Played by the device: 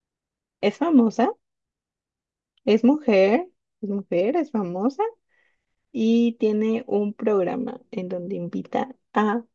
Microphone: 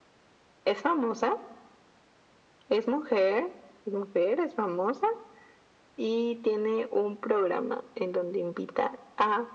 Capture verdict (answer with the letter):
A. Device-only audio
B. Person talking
A